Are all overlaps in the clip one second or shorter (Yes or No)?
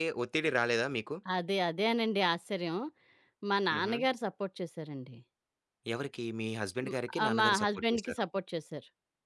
No